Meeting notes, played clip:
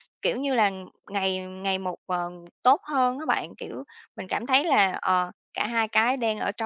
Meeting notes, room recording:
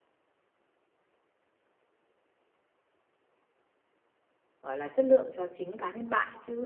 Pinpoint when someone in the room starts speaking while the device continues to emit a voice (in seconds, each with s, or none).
4.6 s